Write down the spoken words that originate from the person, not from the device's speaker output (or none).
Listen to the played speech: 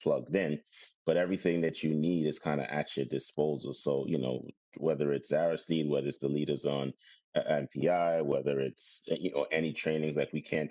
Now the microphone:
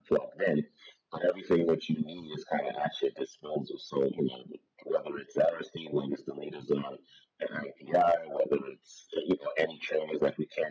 none